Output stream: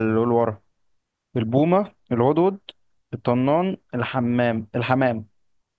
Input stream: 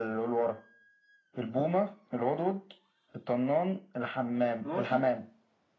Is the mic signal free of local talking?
No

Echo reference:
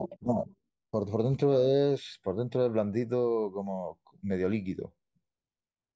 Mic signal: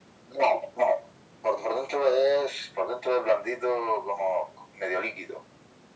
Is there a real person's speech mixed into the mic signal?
No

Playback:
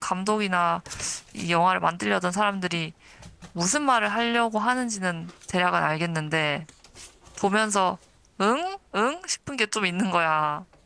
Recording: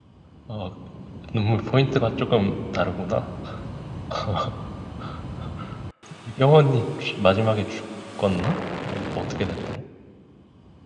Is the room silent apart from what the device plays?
No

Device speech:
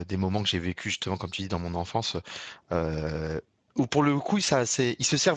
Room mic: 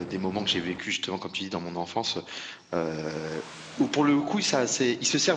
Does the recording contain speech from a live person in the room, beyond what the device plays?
No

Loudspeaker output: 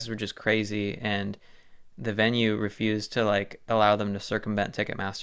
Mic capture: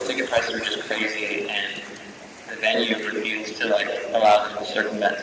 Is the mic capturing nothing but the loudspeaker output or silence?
Yes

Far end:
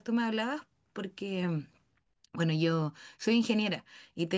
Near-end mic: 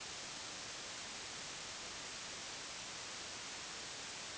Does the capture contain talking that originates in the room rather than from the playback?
No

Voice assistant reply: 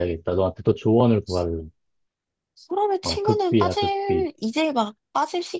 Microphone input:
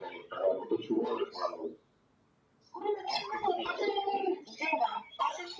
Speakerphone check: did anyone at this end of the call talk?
No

